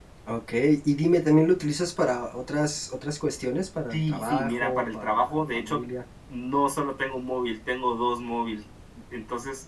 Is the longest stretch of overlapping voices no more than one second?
No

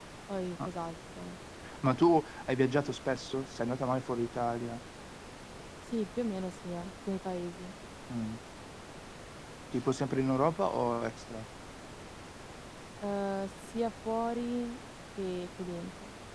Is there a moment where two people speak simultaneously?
No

